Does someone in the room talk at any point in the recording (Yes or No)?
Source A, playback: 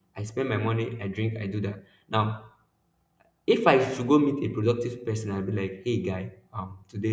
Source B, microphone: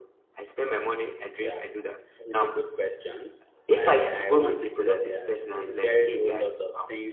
Yes